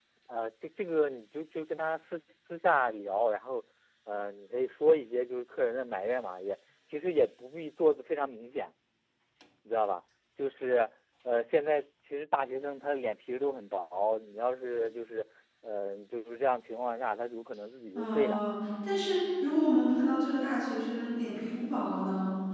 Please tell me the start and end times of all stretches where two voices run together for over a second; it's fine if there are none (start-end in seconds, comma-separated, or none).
none